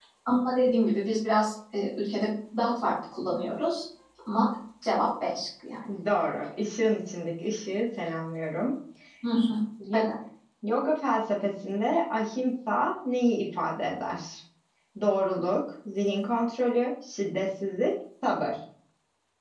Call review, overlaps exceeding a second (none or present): none